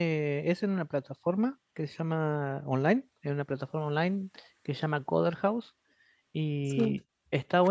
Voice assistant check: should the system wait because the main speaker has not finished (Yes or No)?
Yes